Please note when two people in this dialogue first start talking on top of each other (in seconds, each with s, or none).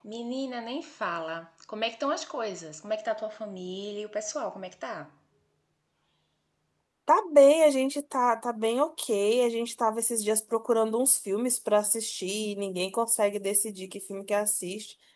none